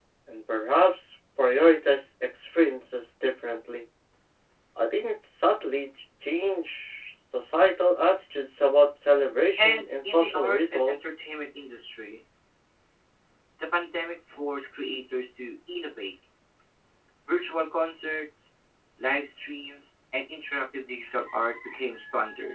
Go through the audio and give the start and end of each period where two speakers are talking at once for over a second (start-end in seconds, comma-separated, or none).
9.6-11.1